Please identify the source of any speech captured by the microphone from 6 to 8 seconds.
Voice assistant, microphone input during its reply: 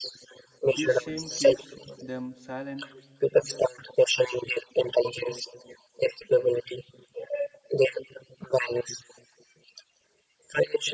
echo only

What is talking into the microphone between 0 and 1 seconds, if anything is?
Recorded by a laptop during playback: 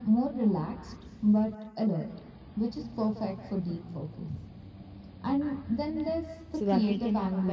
echo only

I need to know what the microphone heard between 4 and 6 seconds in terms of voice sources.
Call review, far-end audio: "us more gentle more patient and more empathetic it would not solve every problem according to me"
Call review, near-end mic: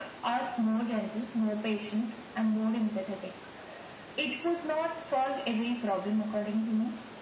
echo only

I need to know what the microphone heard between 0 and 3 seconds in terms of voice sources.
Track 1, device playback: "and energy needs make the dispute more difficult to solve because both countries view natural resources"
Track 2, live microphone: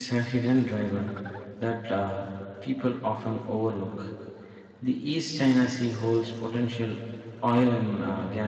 user only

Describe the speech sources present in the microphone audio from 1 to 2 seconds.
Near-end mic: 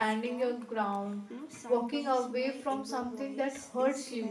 both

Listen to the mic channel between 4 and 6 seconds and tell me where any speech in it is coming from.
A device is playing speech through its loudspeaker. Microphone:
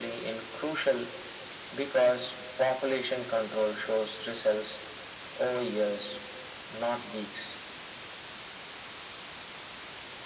echo only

